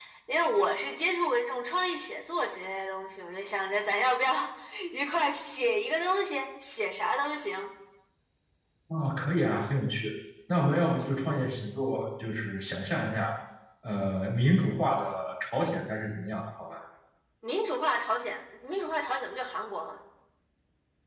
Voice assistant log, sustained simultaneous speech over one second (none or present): none